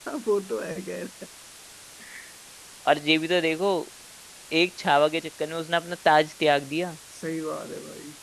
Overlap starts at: none

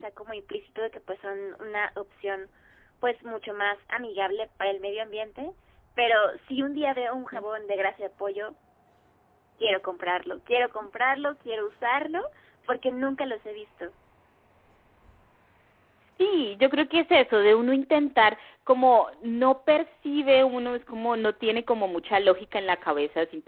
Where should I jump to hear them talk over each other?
none

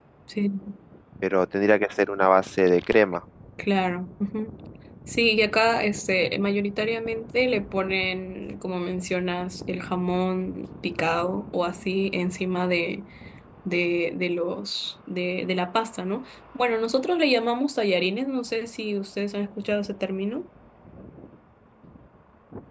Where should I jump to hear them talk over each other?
none

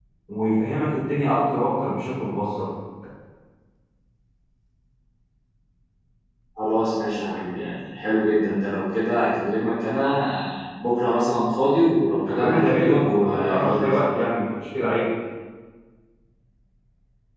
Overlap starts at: 12.3 s

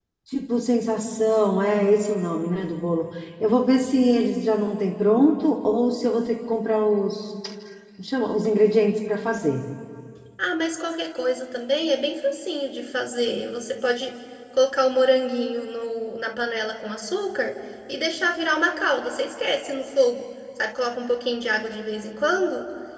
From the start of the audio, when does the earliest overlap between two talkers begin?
none

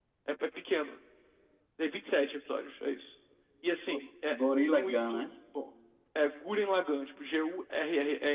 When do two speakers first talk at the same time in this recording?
3.9 s

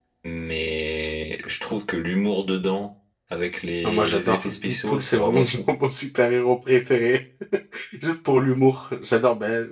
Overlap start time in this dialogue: 3.8 s

